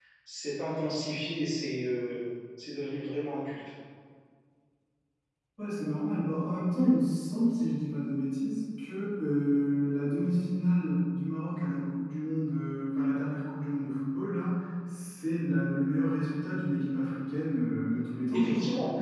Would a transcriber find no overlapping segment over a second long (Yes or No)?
Yes